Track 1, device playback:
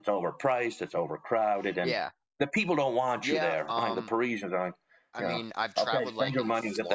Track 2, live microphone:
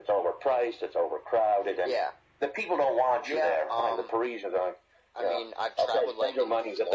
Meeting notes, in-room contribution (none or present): none